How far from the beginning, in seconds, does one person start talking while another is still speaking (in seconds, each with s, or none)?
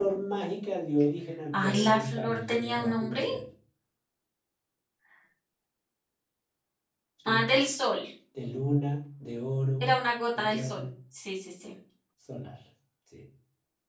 1.5 s